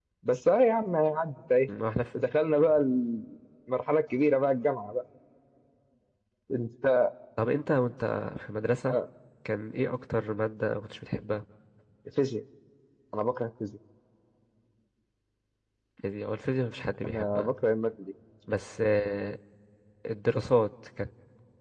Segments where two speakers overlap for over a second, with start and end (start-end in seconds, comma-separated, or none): none